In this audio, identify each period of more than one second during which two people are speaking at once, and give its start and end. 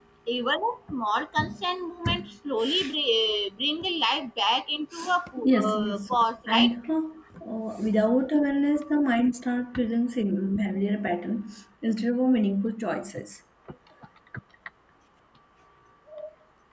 5.4-6.7

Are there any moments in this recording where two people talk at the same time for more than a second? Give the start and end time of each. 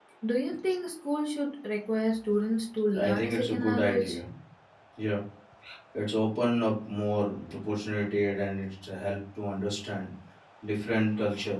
3.0-4.2

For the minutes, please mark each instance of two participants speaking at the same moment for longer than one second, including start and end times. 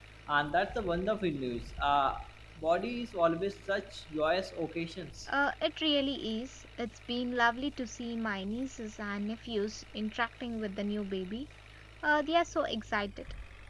none

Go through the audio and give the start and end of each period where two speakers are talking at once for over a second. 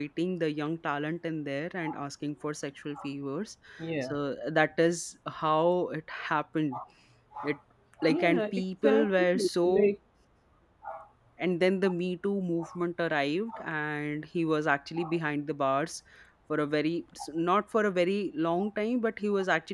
8.1-9.9

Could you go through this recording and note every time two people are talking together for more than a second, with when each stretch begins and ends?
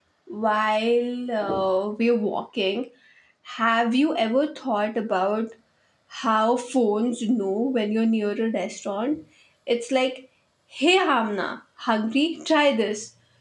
none

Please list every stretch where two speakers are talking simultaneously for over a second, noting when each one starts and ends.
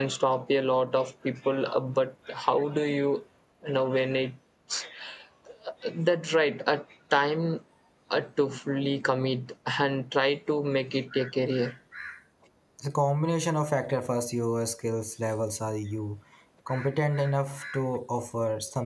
none

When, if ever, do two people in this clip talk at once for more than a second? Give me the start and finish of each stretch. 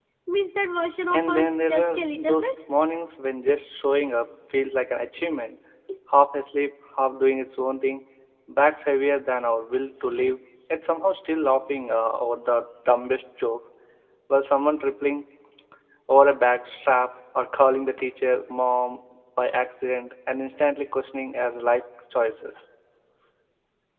1.1-2.5

